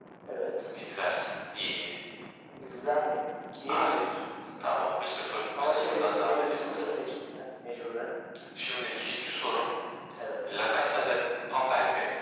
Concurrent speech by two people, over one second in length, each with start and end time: 5.6-6.9

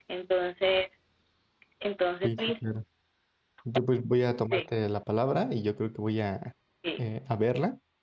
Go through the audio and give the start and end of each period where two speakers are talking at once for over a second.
none

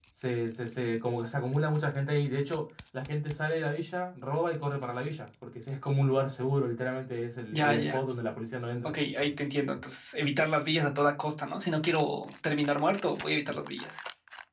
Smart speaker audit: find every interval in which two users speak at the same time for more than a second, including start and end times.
none

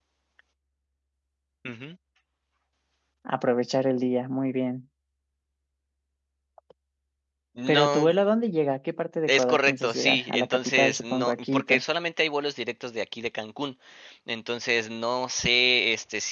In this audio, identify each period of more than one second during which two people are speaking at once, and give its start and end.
9.3-11.8

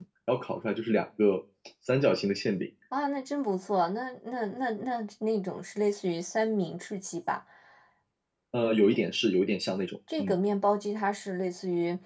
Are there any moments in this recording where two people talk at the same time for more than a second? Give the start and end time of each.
none

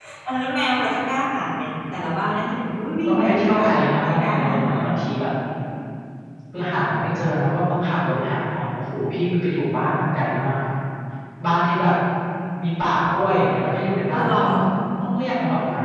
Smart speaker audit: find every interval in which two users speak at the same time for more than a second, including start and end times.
3.0-4.9

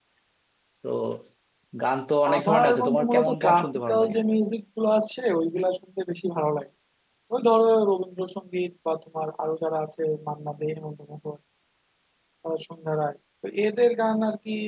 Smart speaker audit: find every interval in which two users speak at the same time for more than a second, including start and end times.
2.4-4.2

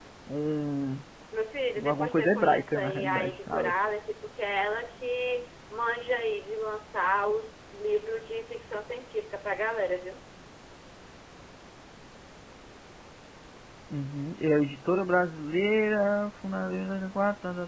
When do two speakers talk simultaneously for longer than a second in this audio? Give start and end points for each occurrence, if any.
1.8-3.7

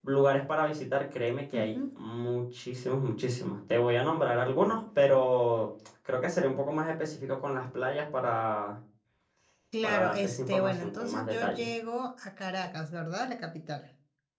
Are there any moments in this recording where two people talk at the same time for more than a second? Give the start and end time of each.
9.8-11.7

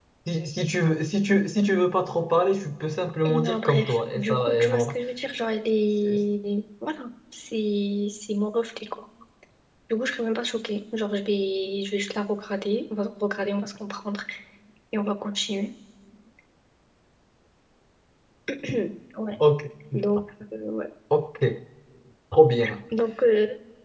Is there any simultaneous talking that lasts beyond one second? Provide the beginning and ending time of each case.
3.3-5.0

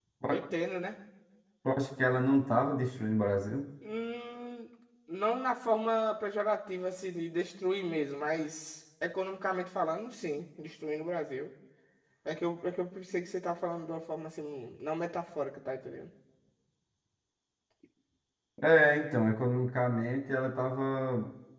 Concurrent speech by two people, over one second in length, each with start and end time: none

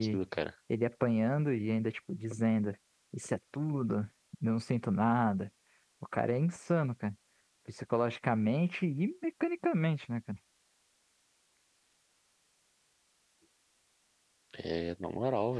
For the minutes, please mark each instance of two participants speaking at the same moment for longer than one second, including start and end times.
none

